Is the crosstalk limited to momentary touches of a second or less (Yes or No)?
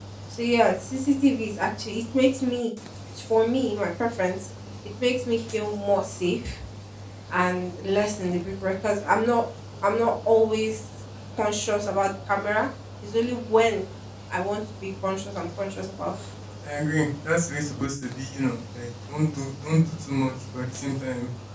Yes